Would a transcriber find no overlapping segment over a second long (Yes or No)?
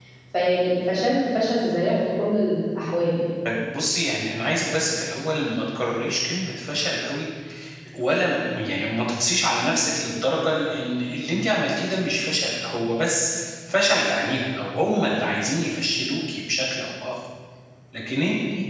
Yes